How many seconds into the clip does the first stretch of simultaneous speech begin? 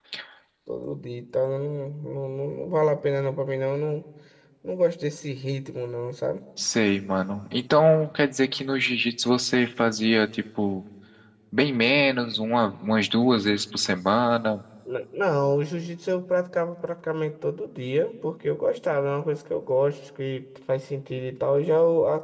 none

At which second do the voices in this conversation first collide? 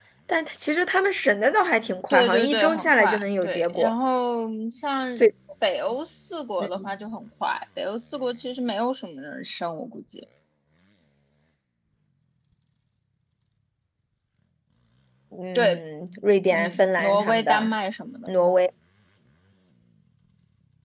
2.1 s

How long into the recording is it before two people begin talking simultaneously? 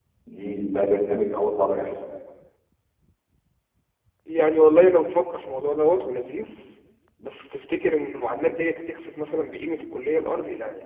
none

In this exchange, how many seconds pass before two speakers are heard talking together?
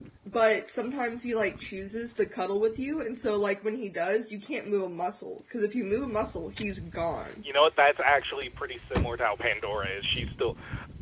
none

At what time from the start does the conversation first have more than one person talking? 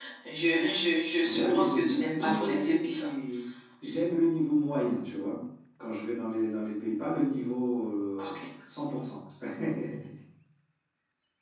1.2 s

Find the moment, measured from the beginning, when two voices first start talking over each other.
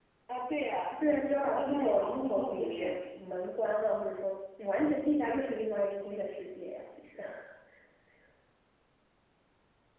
1.6 s

